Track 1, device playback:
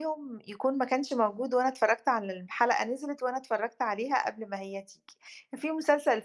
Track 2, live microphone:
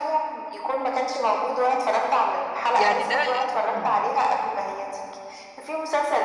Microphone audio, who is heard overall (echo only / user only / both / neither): both